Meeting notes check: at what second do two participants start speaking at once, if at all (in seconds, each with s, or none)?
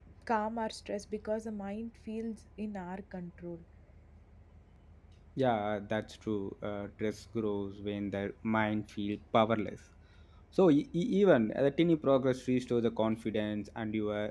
none